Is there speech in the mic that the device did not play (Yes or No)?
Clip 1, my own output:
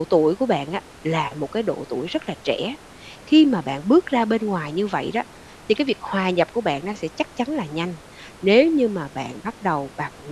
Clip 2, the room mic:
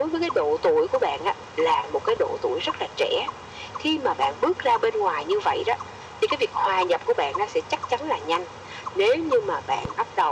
No